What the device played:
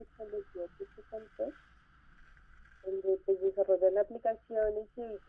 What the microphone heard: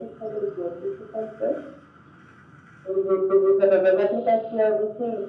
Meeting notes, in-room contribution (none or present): none